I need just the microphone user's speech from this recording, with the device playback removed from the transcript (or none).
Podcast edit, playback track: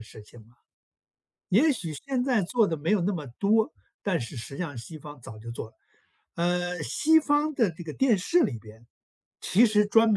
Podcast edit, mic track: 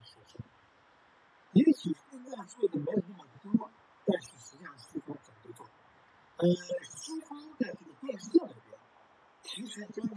none